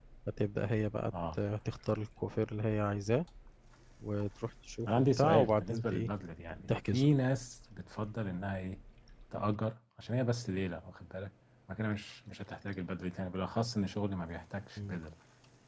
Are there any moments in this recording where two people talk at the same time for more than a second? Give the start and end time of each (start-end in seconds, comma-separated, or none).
4.9-6.1